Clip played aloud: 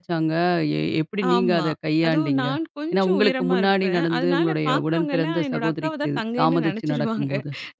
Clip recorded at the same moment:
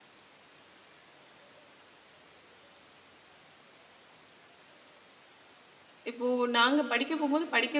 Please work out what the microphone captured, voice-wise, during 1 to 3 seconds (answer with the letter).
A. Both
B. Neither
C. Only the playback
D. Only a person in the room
B